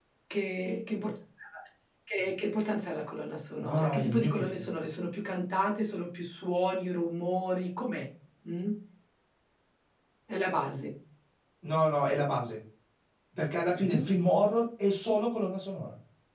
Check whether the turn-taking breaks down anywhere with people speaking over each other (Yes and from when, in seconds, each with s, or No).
Yes, from 3.6 s